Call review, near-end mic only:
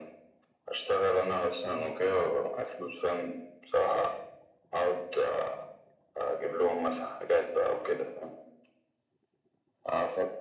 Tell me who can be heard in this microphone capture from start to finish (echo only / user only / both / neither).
echo only